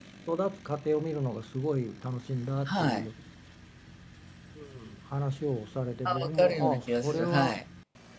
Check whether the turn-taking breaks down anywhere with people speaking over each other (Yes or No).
Yes